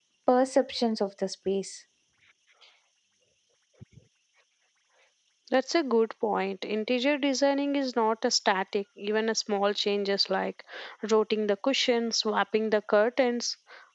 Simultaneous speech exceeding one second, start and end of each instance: none

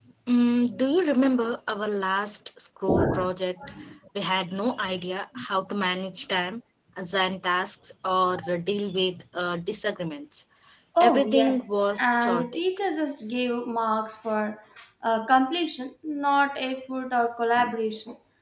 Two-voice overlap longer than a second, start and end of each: 11.0-12.6

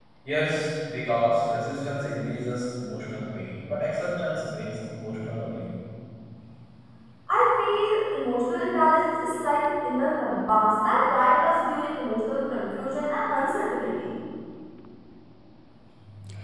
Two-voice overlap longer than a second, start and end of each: none

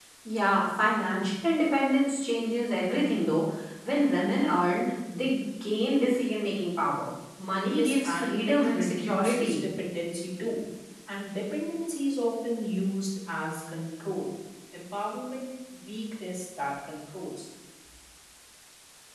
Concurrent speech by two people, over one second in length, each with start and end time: 7.7-9.5

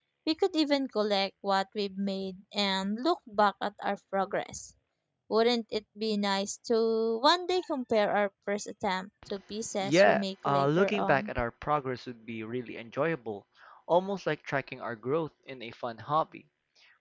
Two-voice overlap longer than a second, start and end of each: 9.8-11.3

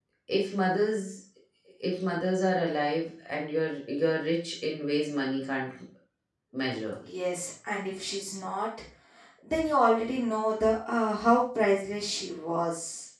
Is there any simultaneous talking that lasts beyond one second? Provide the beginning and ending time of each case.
none

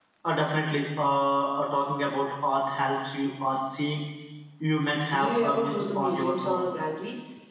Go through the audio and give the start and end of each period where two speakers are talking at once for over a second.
5.2-6.7

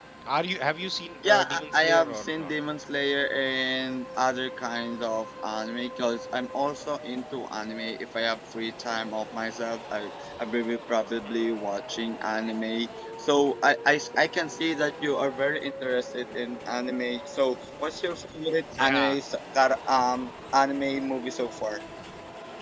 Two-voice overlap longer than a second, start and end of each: 1.2-2.5

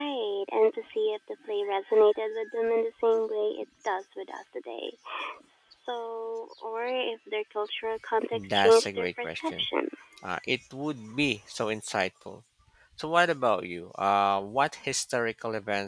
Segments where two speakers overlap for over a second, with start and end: 8.3-9.7

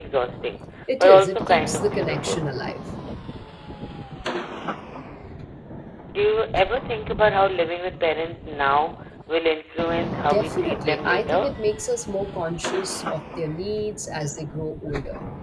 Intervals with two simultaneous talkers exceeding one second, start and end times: 1.0-2.4, 10.2-11.5

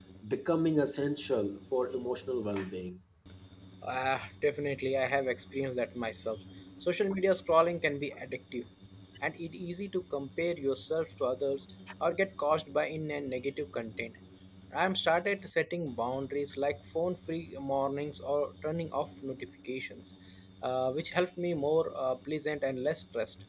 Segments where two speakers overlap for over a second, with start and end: none

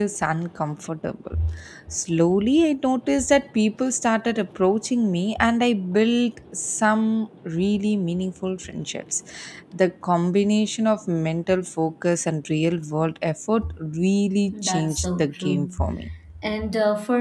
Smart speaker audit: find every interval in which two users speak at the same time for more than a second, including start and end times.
14.5-15.8

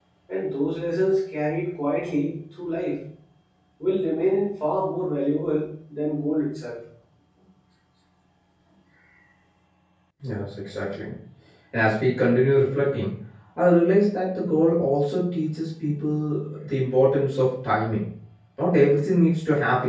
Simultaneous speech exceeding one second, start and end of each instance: none

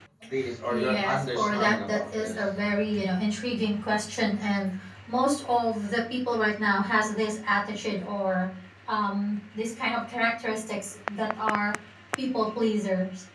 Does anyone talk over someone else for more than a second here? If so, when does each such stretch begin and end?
0.7-2.4

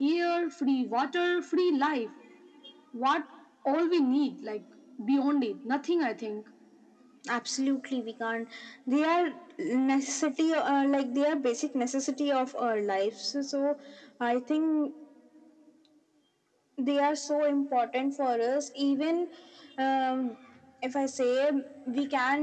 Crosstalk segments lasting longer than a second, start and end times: none

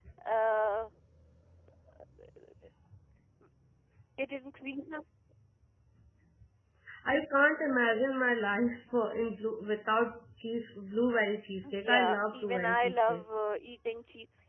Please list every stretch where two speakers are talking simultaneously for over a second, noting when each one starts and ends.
11.6-13.2

